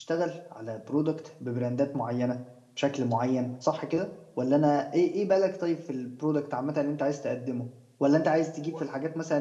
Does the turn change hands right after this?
No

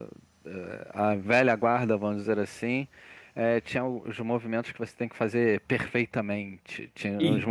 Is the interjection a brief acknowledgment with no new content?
Yes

